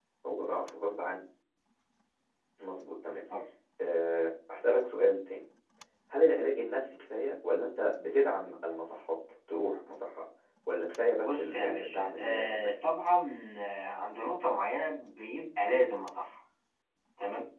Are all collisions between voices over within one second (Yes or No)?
No